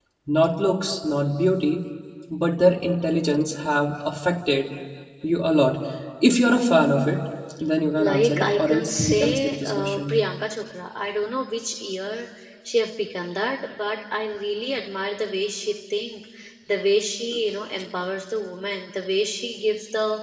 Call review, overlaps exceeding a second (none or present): present